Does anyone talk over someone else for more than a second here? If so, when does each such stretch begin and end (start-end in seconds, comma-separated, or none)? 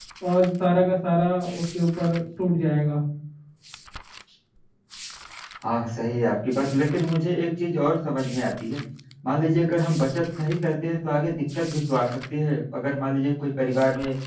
none